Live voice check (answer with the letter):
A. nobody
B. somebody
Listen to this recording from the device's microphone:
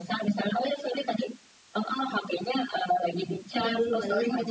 B